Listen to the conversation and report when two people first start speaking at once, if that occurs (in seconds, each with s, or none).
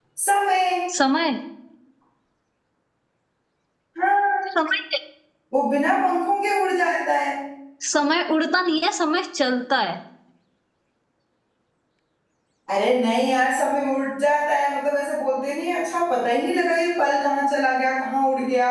none